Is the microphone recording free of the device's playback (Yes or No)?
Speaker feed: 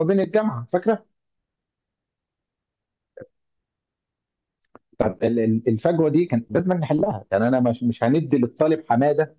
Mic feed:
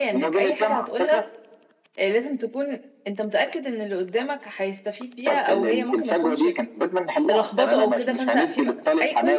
No